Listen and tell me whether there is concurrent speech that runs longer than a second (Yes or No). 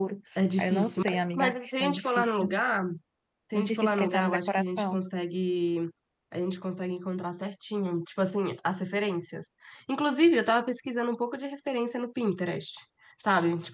Yes